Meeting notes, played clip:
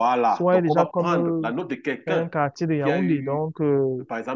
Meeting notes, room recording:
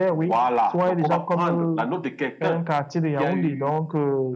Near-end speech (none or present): none